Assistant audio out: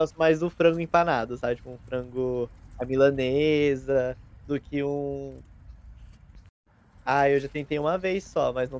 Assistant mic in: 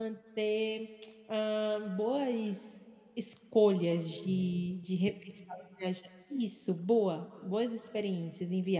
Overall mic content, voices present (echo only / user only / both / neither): user only